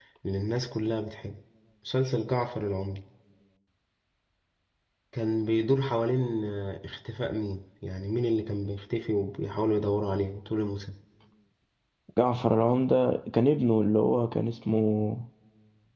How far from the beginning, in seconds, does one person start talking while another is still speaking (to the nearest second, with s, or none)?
none